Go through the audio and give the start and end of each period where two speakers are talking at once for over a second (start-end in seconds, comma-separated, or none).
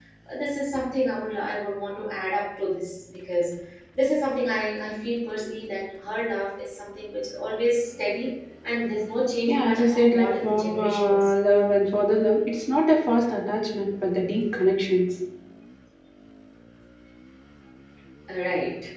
9.5-11.3